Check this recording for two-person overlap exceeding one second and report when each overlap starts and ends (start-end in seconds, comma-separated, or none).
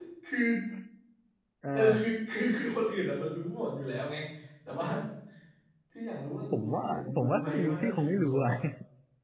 6.5-8.5